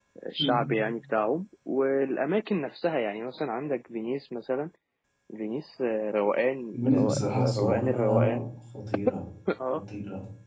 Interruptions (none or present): present